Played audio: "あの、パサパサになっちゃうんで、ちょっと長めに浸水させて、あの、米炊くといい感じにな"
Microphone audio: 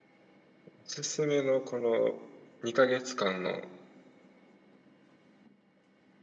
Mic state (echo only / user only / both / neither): user only